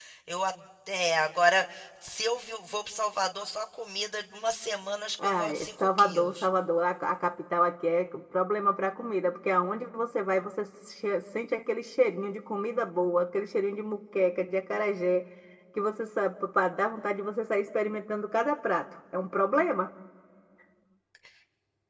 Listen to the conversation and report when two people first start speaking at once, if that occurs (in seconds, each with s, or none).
5.2 s